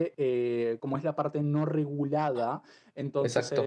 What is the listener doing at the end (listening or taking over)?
listening